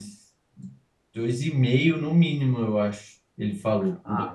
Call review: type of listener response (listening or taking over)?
taking over